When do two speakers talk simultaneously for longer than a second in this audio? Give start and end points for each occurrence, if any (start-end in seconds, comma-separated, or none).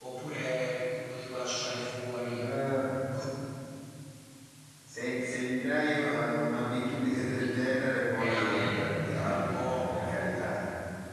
8.2-10.0